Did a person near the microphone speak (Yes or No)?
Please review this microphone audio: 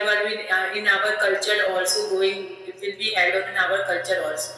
No